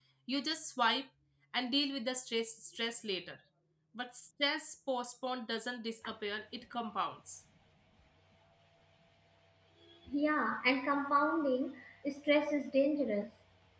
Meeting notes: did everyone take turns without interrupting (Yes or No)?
Yes